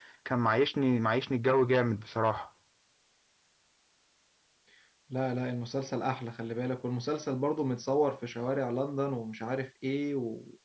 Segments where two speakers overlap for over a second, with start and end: none

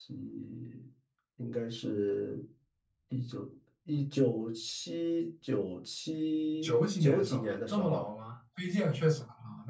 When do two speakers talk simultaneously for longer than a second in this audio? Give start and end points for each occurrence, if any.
6.6-8.1

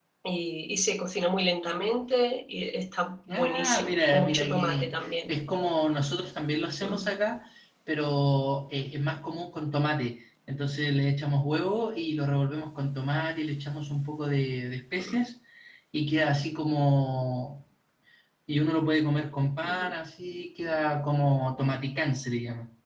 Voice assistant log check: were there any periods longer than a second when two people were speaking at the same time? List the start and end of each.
3.3-5.3

